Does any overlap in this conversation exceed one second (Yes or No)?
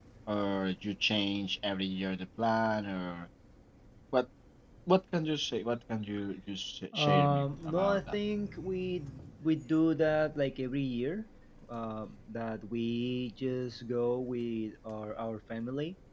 Yes